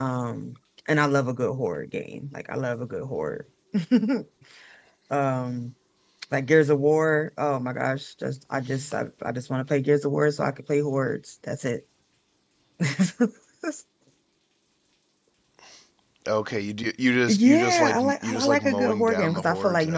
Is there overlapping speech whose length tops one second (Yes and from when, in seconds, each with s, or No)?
Yes, from 17.3 s